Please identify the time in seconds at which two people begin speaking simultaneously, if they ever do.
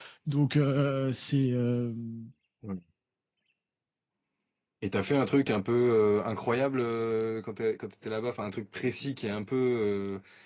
none

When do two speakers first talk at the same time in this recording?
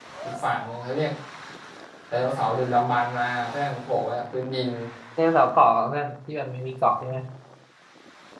none

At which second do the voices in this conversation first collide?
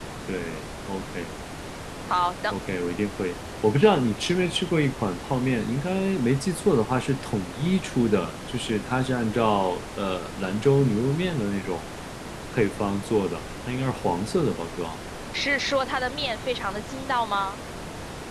none

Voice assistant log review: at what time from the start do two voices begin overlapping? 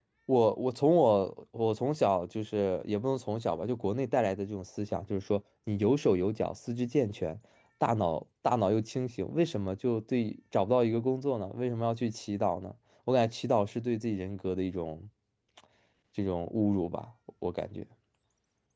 none

